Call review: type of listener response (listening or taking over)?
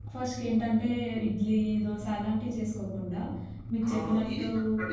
taking over